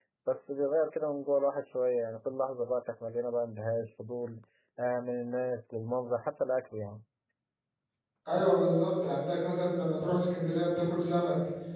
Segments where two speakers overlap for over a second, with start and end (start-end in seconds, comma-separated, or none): none